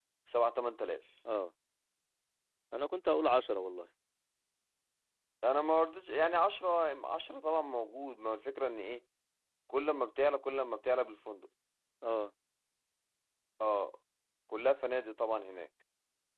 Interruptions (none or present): none